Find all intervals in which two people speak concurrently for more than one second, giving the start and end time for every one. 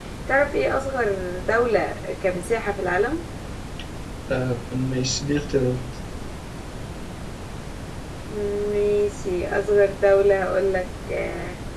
none

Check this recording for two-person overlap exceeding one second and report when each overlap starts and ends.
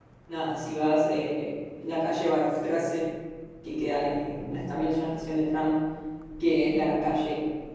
none

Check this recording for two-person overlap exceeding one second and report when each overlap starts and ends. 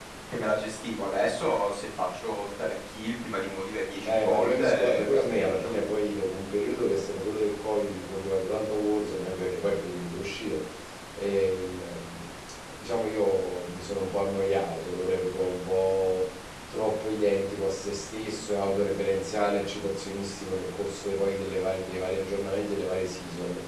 4.0-5.7

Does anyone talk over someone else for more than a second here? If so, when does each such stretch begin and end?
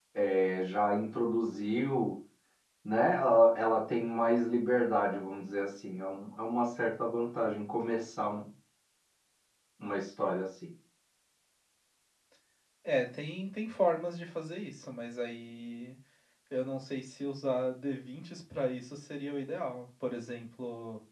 none

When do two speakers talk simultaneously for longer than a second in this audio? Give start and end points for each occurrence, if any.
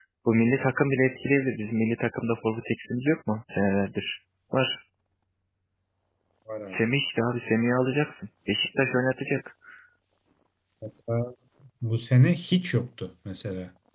none

